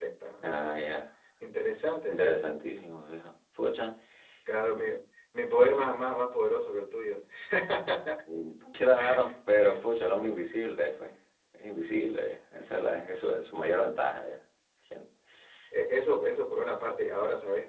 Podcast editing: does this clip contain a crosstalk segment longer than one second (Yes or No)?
No